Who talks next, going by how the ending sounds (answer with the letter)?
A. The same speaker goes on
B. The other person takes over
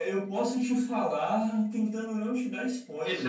B